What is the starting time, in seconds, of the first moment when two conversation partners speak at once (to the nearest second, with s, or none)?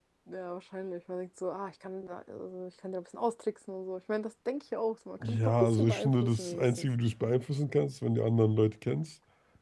5 s